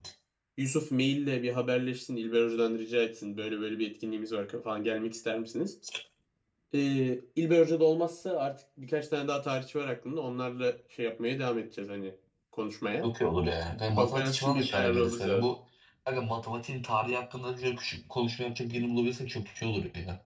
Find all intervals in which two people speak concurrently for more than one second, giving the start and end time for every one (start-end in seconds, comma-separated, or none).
14.0-15.5